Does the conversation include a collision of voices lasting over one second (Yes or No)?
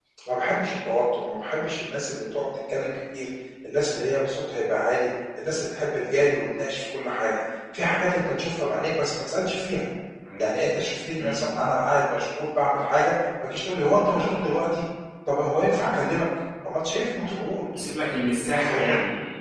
No